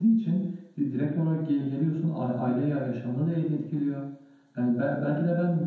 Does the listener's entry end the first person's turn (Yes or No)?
No